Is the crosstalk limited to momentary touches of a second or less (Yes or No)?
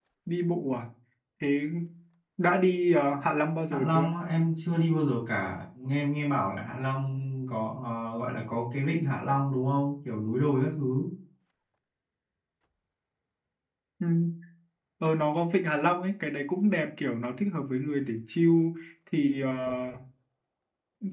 Yes